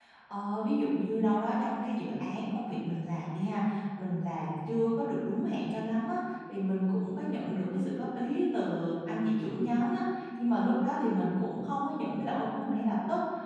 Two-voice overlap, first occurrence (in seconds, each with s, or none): none